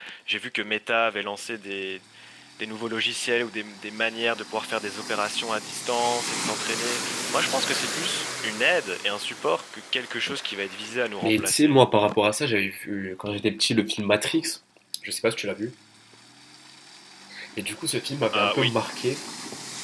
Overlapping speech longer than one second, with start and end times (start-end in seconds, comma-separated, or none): none